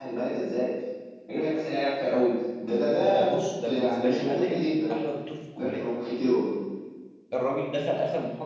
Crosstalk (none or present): present